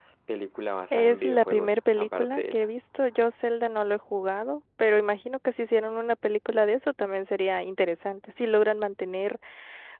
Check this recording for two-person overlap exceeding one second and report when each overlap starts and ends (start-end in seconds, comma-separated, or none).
0.9-2.7